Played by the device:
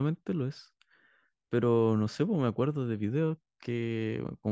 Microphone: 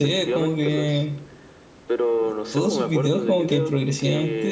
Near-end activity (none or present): present